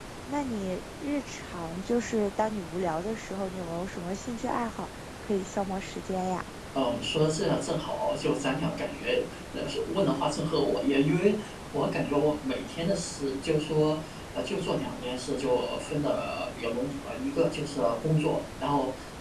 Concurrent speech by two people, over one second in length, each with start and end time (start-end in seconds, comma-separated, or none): none